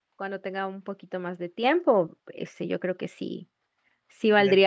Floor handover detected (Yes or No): No